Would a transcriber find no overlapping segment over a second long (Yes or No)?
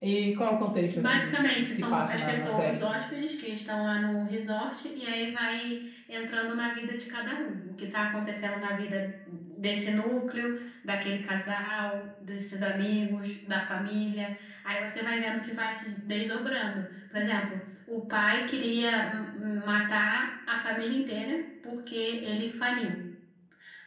No